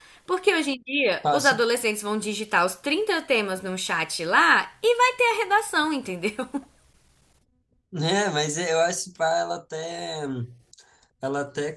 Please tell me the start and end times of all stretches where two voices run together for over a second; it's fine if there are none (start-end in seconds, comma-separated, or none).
none